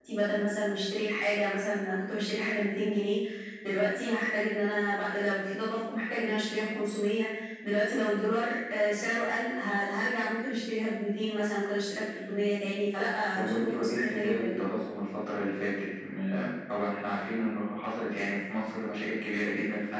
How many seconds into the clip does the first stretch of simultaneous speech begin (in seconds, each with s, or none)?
13.4 s